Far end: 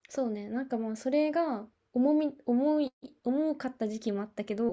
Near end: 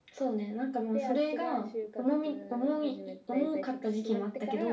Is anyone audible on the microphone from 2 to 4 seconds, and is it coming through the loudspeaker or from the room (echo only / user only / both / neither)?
both